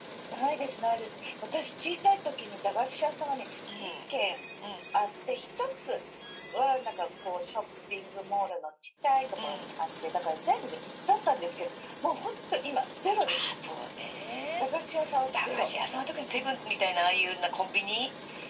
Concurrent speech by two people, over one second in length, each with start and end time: none

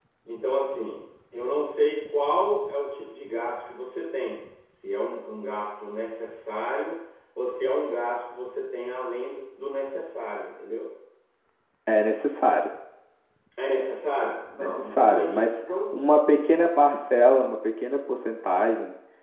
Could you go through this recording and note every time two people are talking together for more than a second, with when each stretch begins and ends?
14.6-15.9

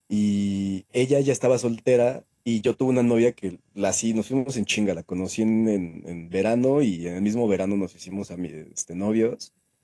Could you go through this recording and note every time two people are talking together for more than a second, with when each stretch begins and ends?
none

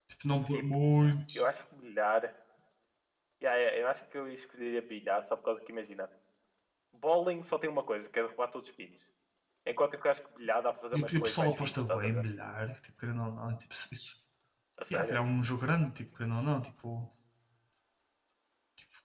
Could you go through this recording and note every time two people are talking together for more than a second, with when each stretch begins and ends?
10.9-12.2

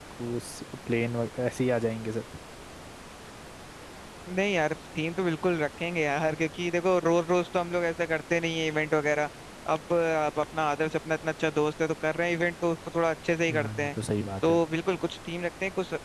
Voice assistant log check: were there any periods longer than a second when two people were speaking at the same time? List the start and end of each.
none

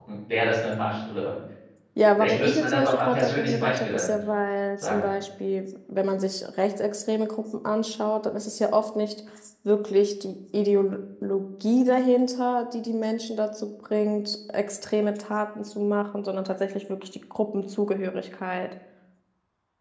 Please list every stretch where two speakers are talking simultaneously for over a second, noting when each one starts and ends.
2.2-4.2

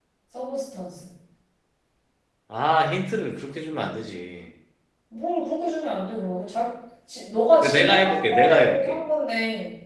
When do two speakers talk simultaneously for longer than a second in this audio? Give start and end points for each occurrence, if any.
7.6-9.0

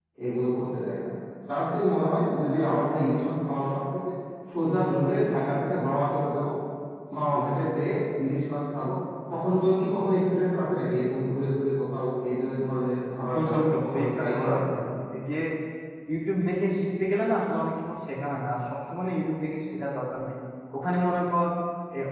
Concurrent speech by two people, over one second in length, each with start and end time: 13.3-14.6

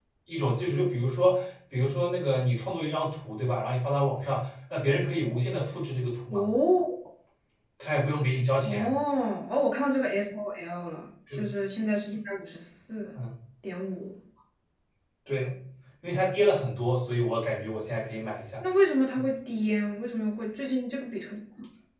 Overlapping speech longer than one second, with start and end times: none

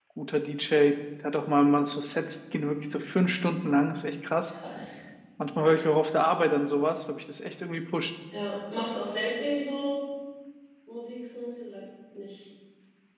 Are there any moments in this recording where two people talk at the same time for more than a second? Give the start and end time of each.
none

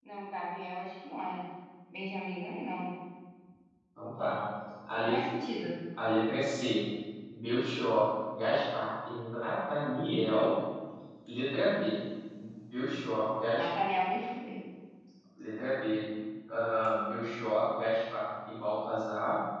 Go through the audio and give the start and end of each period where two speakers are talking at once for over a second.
none

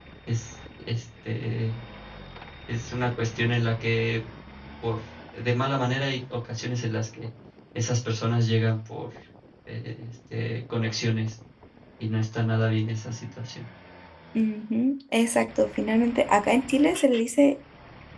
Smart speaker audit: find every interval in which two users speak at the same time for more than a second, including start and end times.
none

